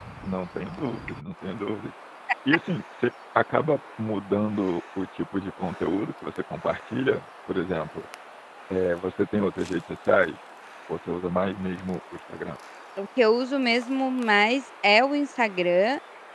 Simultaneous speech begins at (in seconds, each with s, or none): none